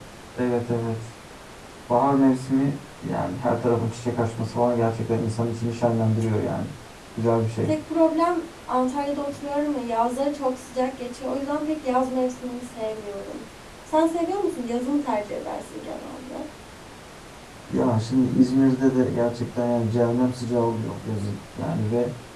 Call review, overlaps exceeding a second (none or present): none